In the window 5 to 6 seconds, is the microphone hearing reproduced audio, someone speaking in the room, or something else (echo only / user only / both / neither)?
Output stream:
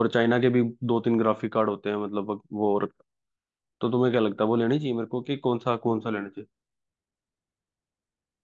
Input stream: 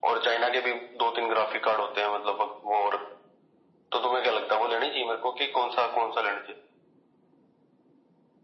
echo only